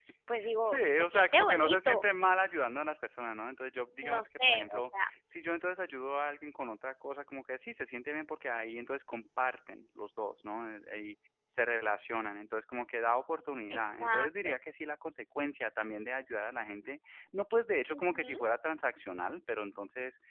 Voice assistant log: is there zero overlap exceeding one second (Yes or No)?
No